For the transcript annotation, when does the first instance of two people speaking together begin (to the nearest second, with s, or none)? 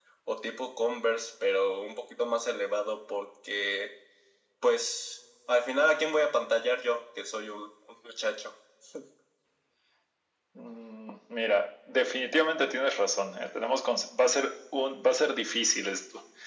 none